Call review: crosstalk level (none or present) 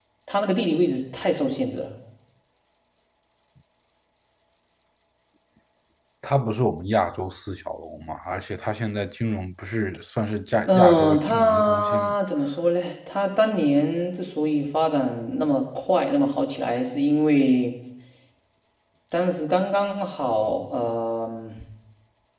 present